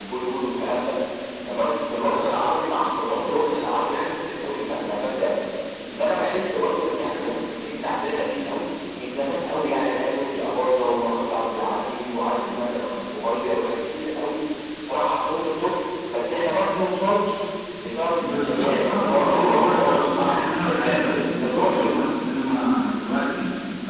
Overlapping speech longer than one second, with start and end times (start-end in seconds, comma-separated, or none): 18.2-21.7